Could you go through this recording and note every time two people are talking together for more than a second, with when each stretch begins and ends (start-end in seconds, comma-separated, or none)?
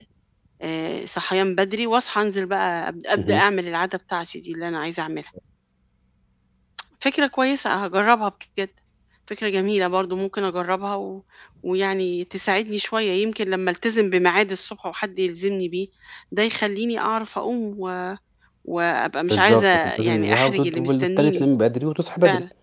19.3-21.5